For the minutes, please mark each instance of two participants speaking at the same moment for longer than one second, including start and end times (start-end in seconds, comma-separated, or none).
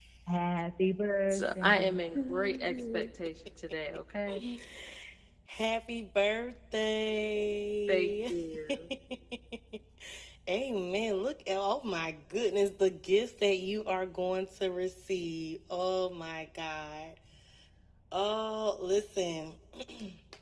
1.3-3.1